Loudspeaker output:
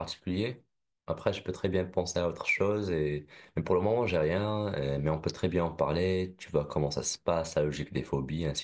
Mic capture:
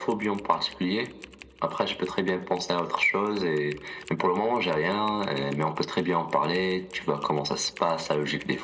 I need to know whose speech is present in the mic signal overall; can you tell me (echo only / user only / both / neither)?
echo only